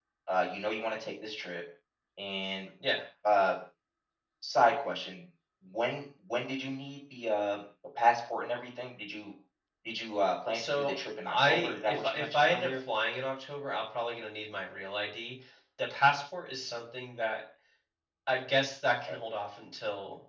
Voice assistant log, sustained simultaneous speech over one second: present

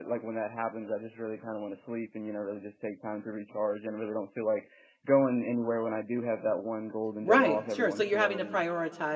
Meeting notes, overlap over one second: present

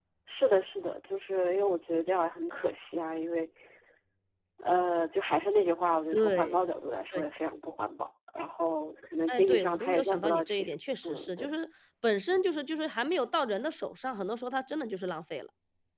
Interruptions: present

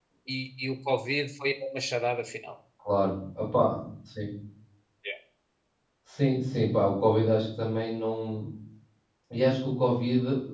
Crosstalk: none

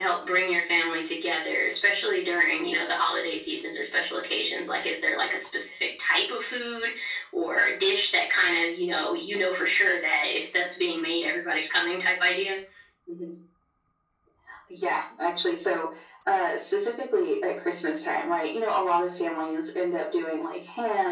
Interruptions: none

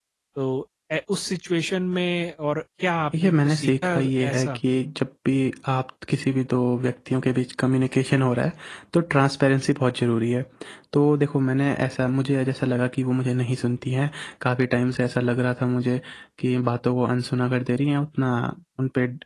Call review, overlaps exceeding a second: present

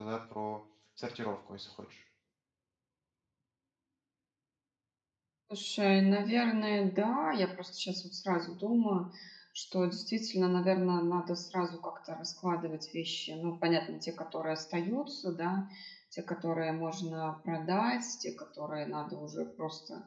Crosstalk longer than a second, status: none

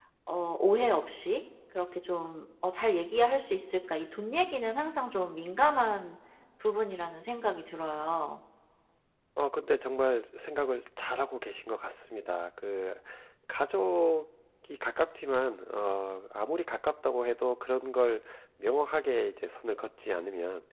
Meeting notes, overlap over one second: none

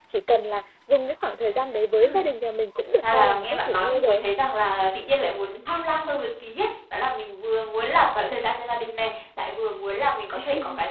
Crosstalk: present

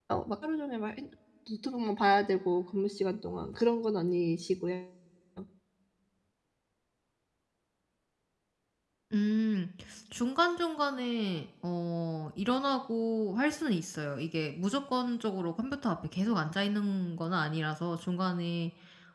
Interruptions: none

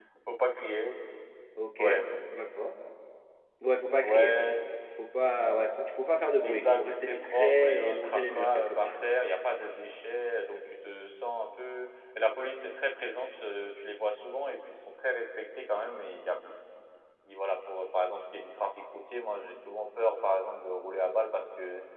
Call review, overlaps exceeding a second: present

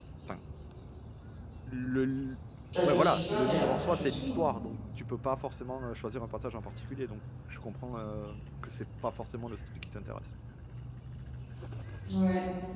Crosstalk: present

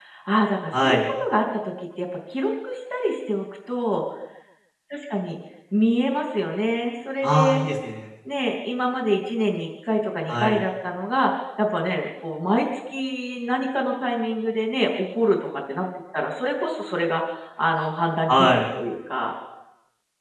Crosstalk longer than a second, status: none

